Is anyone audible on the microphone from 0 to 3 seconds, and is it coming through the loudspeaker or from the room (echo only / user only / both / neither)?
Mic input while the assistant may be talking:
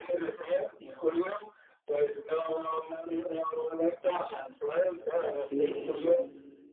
echo only